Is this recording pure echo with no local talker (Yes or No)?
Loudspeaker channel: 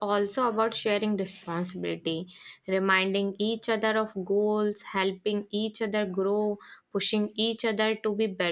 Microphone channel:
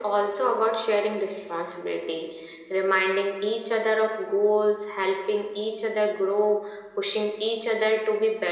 Yes